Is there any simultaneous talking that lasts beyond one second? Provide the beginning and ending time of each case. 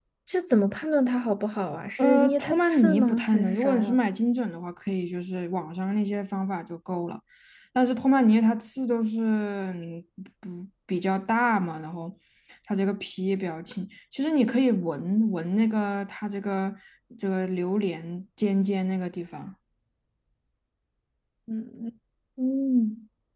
2.0-4.0

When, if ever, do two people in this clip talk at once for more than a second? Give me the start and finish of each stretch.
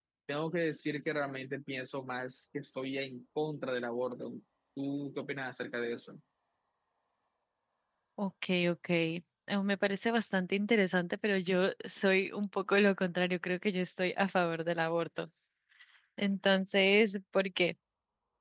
none

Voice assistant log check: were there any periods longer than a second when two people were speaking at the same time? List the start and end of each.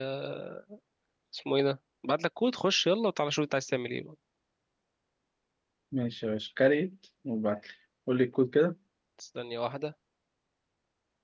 none

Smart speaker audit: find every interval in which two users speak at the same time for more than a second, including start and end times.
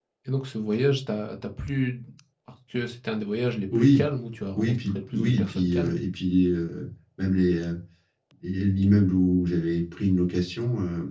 3.8-6.0

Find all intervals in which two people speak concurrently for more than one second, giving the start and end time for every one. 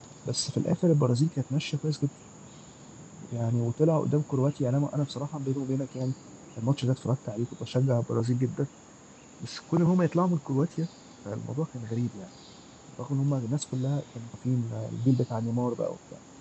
none

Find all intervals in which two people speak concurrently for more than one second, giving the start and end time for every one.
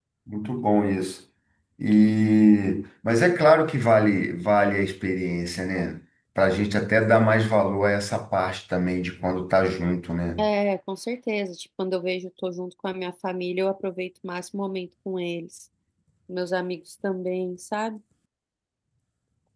none

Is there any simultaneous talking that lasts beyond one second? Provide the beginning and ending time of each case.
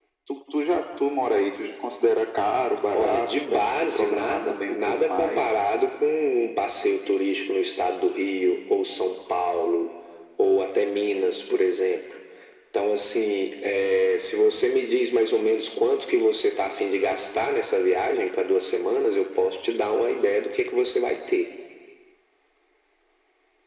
2.9-5.5

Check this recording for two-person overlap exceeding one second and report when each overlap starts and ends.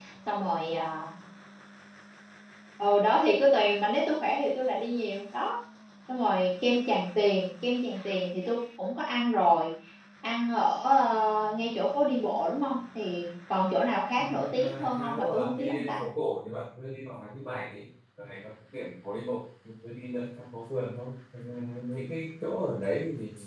14.2-16.0

